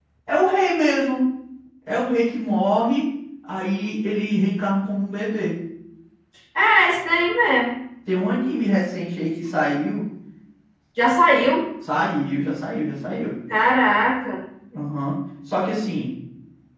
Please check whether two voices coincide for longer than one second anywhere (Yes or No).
No